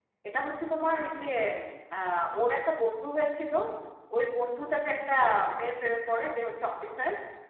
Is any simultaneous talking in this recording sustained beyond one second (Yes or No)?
No